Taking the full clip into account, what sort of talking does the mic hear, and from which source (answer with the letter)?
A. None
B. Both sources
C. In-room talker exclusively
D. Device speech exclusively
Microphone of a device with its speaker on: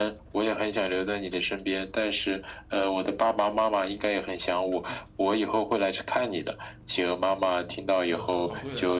B